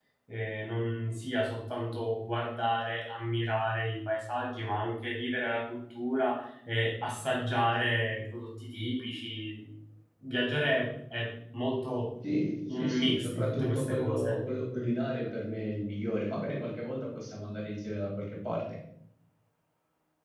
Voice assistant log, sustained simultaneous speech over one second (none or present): present